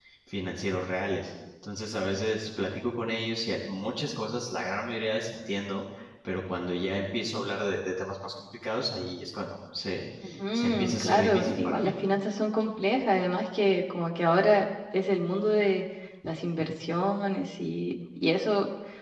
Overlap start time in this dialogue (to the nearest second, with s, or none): 11 s